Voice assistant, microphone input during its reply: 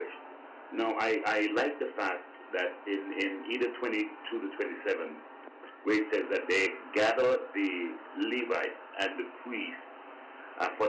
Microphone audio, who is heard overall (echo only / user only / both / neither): user only